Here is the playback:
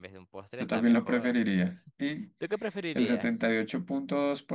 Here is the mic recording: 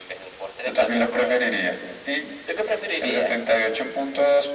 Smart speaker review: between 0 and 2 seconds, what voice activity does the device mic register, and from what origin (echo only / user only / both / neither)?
echo only